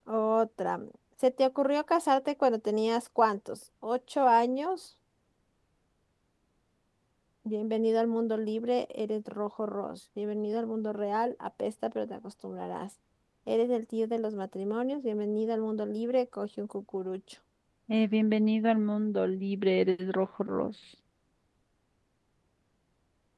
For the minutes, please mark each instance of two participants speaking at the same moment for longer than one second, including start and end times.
none

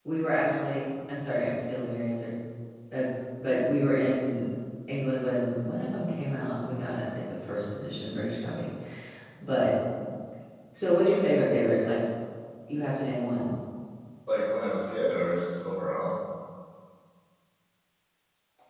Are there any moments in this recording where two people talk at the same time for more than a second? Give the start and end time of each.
none

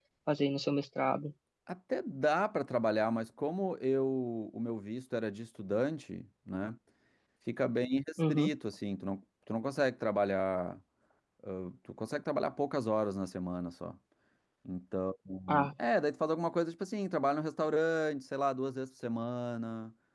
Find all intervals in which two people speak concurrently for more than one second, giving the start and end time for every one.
none

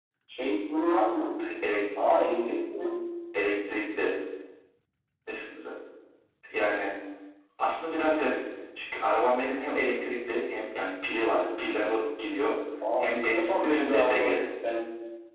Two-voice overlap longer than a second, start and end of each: 13.0-14.4

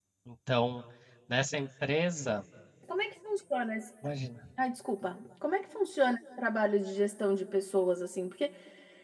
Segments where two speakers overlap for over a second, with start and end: none

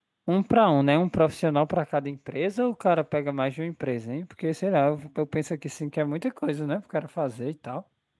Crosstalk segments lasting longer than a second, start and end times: none

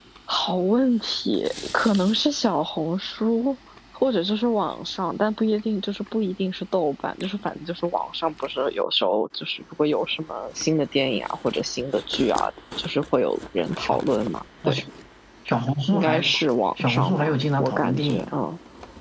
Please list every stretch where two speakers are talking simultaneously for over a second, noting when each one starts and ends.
16.8-18.4

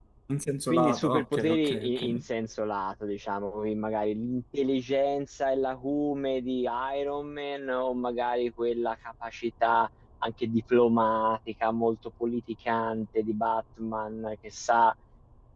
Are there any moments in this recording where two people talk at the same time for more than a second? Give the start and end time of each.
0.7-2.2

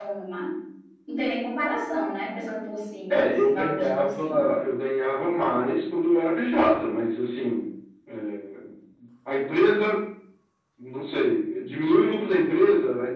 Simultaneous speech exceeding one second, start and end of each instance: 3.1-4.5

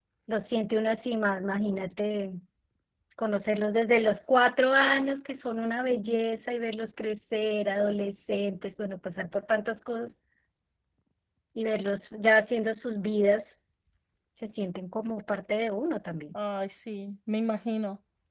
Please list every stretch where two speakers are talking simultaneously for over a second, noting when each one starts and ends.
none

